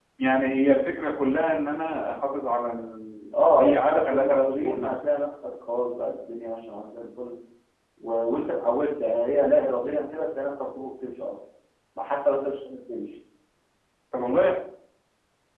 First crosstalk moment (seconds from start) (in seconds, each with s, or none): 3.3 s